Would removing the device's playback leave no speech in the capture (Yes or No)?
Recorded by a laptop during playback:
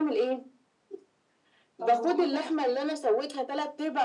No